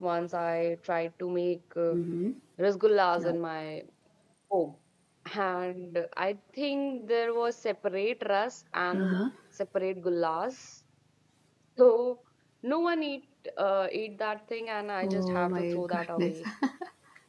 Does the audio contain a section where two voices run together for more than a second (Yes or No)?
Yes